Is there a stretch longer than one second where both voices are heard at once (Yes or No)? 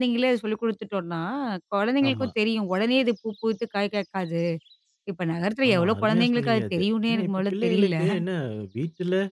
Yes